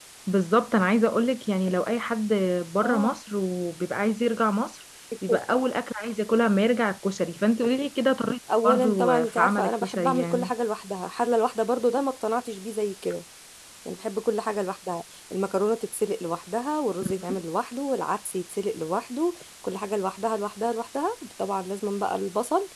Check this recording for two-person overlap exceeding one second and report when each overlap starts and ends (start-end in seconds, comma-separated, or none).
8.6-10.5